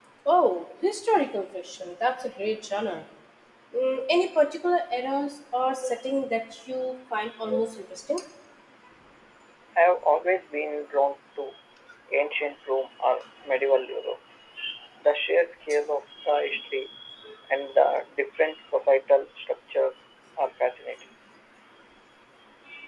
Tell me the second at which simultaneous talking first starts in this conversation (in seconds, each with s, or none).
none